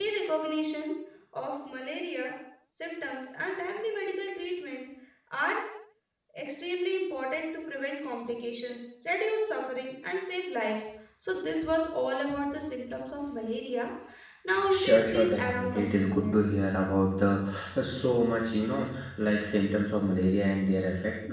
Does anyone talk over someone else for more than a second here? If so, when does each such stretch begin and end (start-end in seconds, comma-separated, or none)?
14.7-16.3